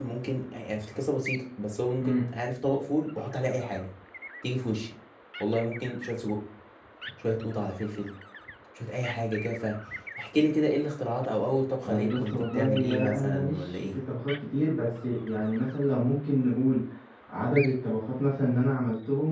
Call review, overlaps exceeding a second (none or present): present